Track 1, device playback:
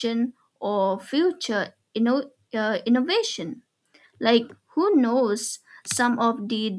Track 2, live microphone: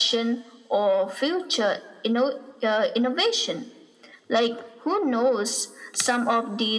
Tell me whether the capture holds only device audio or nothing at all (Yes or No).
Yes